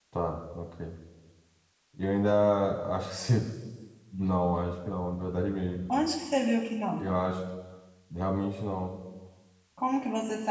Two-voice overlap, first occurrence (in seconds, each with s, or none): none